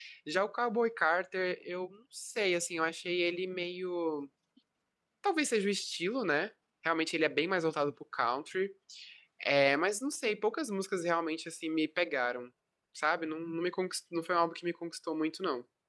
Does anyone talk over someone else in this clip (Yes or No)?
No